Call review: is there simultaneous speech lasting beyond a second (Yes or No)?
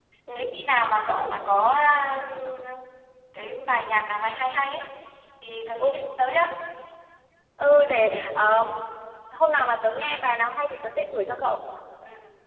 No